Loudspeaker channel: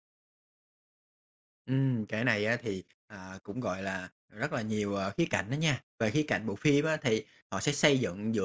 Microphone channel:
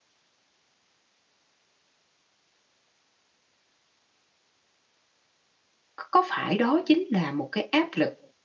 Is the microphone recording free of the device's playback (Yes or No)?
Yes